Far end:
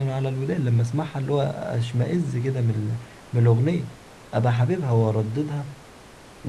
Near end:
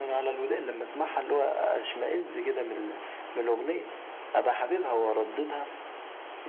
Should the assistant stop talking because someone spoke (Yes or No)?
No